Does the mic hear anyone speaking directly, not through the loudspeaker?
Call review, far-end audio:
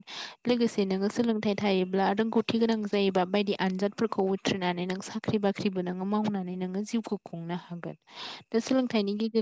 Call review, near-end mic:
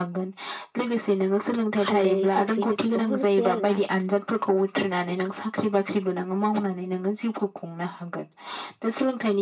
Yes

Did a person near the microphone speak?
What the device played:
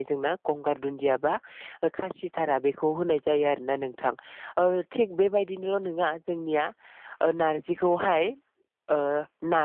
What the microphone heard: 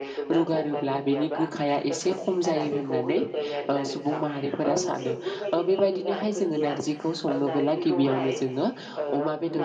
Yes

